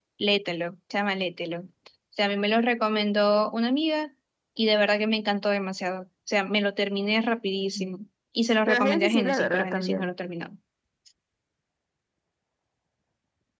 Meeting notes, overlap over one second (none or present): present